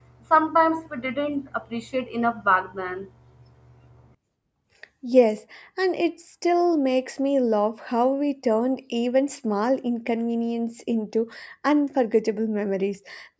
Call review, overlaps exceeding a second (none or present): none